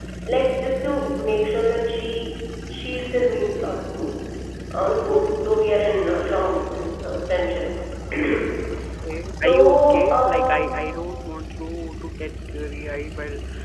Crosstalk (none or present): present